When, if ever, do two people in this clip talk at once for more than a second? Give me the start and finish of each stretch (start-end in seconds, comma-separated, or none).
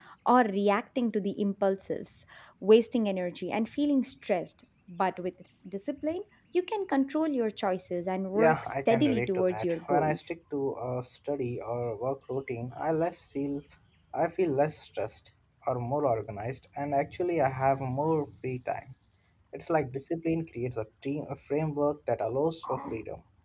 8.3-10.2